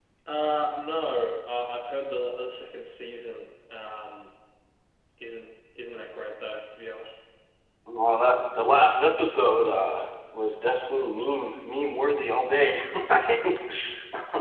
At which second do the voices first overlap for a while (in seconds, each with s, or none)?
none